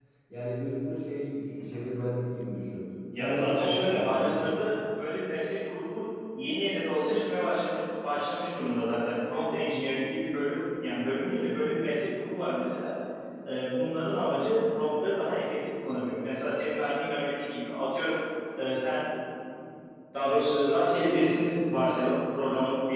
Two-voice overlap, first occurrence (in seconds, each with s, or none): 3.1 s